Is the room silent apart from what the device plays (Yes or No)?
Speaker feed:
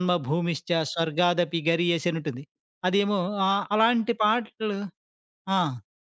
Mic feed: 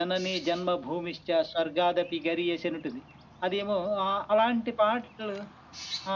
Yes